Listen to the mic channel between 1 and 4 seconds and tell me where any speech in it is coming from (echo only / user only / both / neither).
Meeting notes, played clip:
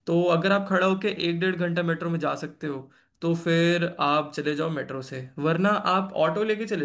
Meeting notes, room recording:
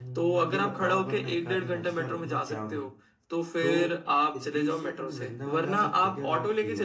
both